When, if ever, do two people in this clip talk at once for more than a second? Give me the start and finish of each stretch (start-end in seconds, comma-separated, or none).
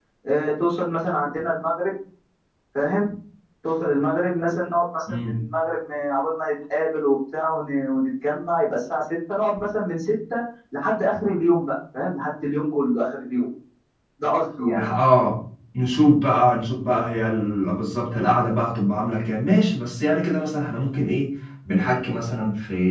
none